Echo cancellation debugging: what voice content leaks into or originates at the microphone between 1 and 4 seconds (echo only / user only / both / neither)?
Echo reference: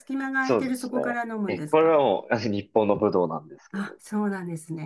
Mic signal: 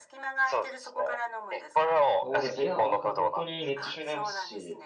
both